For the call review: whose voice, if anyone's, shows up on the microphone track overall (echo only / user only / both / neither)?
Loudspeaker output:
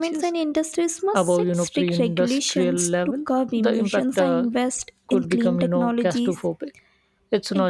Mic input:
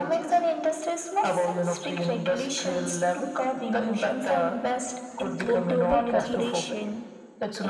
both